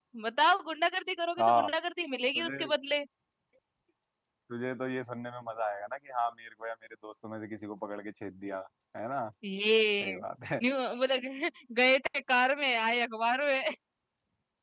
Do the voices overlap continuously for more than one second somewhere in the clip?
No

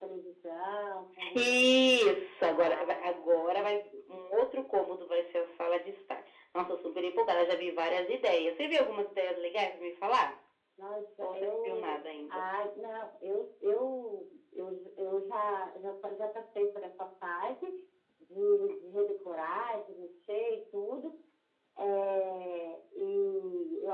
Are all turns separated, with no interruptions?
No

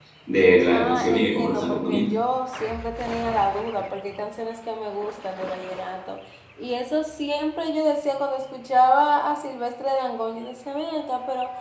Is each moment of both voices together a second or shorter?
No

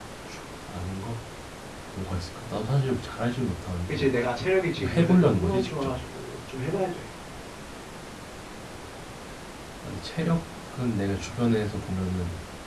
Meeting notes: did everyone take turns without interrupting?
No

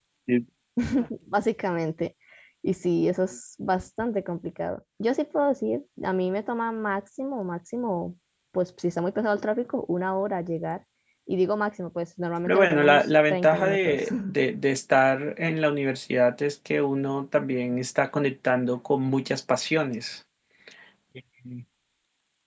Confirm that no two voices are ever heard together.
No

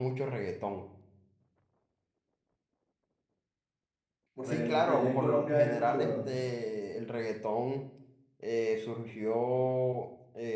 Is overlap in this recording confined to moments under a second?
No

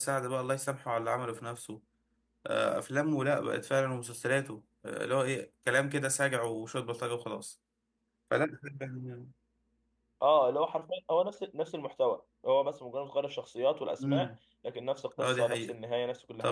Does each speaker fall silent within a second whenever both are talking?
Yes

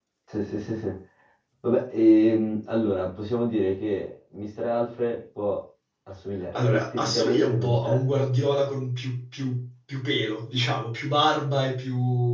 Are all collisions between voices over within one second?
No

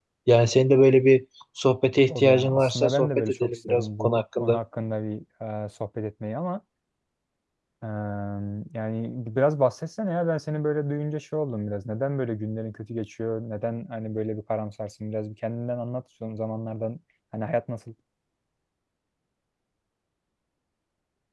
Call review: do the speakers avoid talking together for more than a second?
No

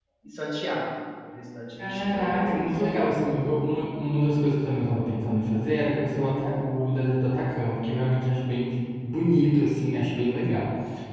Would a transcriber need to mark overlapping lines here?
Yes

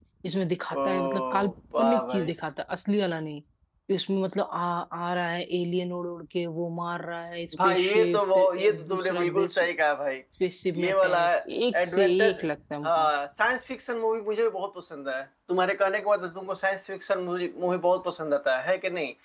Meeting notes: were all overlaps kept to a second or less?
No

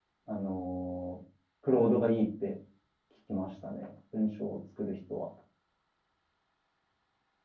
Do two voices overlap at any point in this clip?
No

